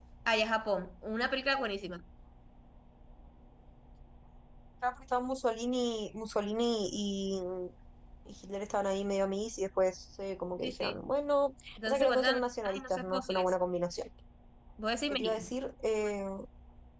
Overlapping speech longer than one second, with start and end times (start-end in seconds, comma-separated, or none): 11.9-13.5